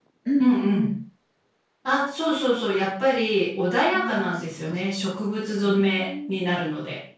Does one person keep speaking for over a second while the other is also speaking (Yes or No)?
Yes